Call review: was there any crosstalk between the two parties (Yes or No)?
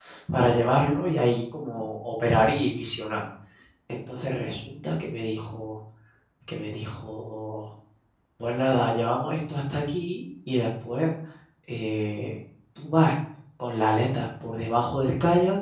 No